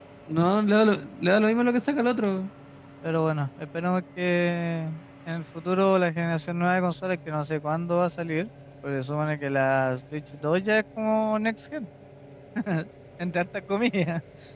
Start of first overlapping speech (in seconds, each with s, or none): none